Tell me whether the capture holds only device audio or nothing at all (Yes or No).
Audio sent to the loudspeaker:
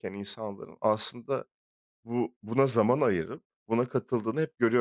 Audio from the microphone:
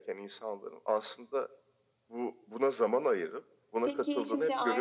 No